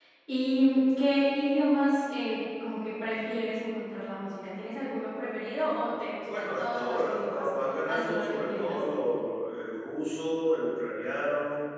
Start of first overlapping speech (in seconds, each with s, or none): 6.2 s